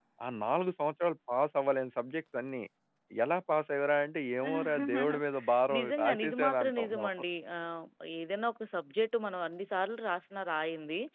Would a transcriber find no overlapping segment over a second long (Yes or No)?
No